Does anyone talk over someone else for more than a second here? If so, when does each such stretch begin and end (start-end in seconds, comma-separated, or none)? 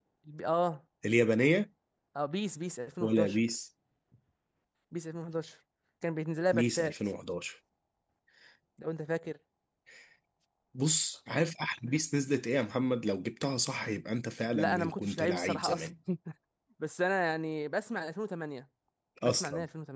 14.5-15.9